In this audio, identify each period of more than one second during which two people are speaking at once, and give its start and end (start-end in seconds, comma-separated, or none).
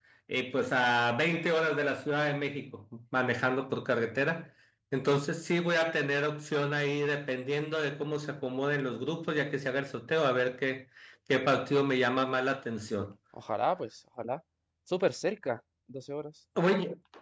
none